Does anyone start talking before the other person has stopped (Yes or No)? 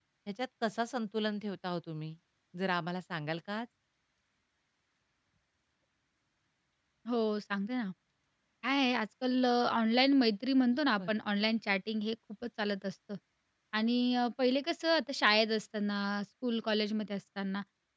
No